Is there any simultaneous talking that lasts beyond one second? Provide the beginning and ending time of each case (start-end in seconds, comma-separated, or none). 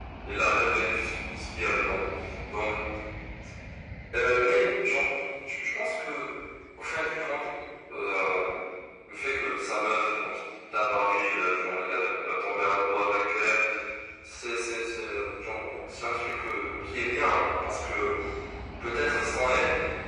none